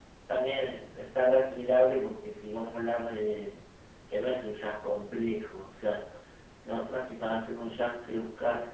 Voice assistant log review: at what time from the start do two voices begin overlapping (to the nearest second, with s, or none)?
none